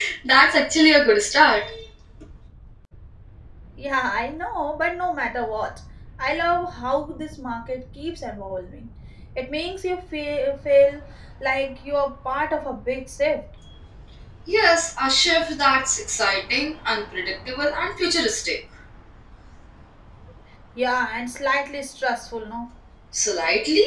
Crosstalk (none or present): none